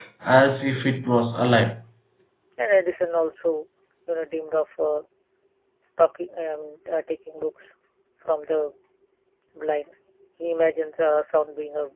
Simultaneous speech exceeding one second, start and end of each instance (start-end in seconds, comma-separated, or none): none